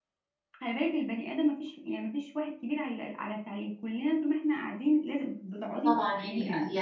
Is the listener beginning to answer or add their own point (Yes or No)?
Yes